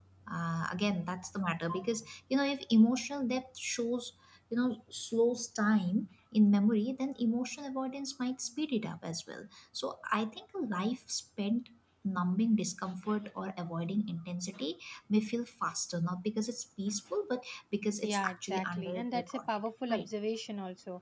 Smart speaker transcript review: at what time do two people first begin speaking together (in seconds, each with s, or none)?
18.0 s